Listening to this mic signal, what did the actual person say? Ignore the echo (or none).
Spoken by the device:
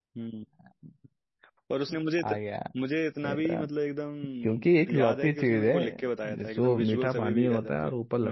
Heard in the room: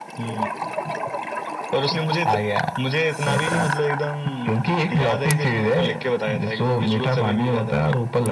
none